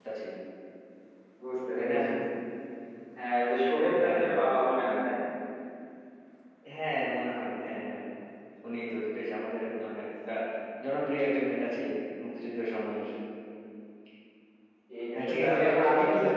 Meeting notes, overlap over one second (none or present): present